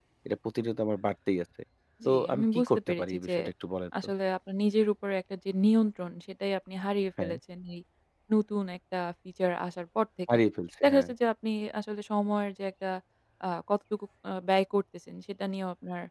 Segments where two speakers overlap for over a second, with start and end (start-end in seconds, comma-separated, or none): 2.0-3.3